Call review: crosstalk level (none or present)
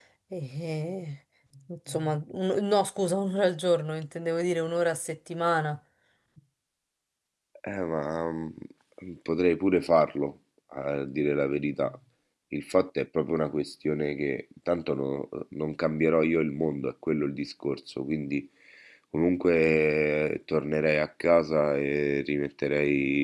none